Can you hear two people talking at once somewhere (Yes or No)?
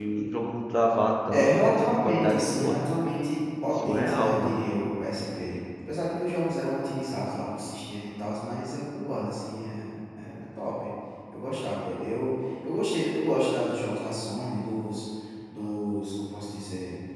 Yes